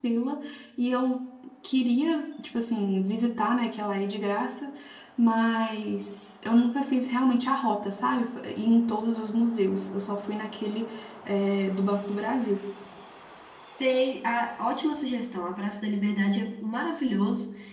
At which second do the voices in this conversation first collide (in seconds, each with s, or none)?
none